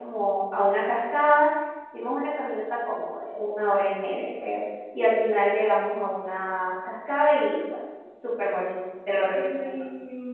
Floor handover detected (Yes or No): Yes